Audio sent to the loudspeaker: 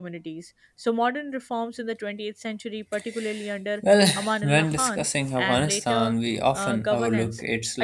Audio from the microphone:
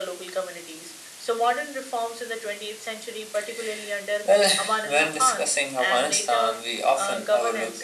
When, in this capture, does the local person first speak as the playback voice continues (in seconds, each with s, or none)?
none